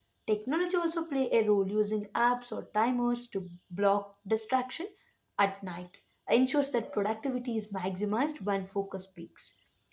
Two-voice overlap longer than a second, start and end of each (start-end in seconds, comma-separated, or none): none